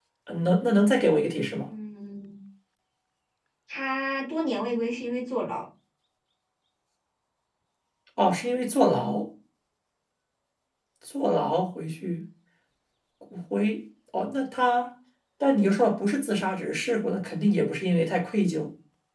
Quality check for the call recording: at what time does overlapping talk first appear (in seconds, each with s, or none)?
none